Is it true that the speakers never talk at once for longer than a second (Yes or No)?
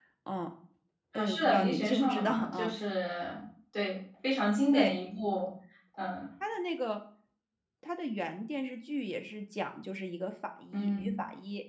No